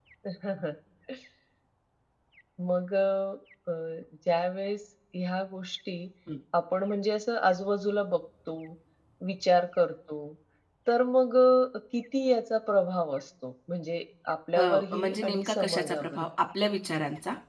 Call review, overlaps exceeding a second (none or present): present